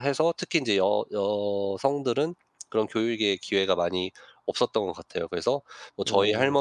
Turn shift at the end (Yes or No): No